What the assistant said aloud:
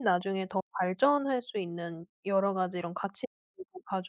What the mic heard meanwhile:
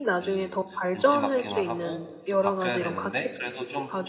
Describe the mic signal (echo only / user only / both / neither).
both